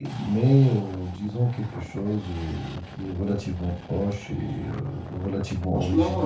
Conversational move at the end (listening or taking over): listening